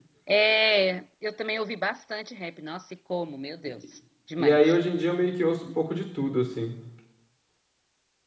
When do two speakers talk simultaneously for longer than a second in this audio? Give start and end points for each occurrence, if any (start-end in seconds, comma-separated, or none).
none